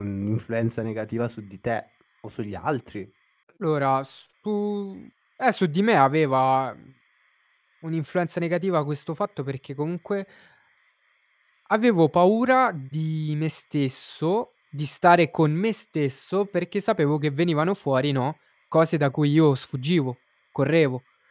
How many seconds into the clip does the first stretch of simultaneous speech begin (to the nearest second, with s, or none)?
none